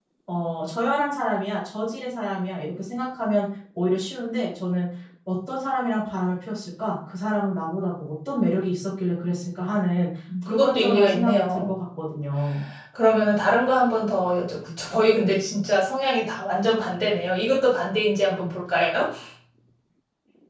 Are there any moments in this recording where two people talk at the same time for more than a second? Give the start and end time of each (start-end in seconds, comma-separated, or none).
10.4-11.7